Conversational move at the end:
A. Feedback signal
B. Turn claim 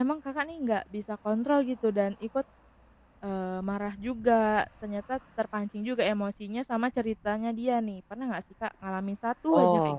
B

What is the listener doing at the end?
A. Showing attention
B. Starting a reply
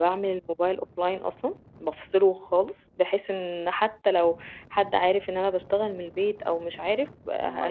A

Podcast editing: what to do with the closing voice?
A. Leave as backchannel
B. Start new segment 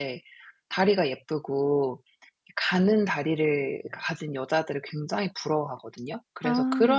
A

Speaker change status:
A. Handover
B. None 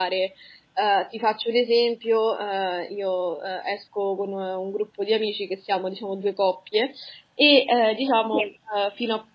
B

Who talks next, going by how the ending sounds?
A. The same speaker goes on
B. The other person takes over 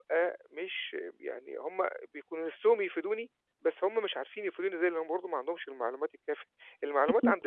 A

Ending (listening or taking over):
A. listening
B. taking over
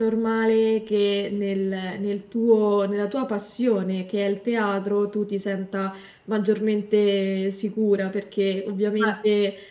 A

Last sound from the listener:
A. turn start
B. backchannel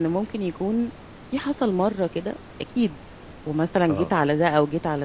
B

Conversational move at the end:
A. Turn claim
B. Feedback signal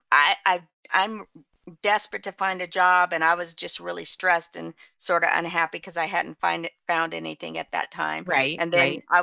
B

